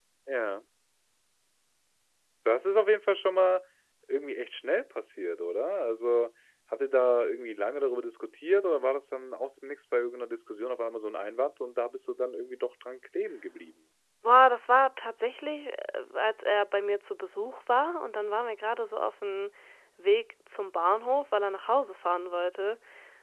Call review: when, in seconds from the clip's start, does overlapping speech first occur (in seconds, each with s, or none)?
none